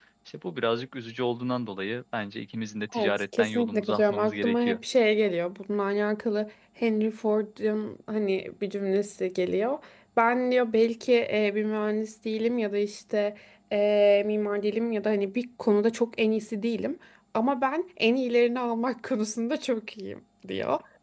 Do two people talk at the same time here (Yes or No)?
Yes